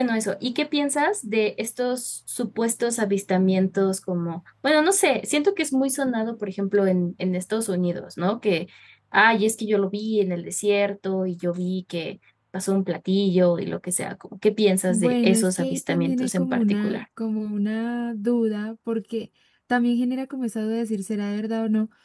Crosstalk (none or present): present